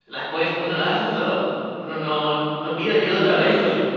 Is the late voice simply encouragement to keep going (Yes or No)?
No